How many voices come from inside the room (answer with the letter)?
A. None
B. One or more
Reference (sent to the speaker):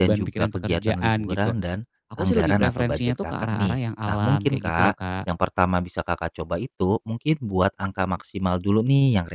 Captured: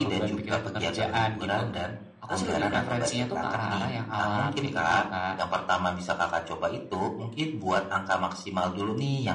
A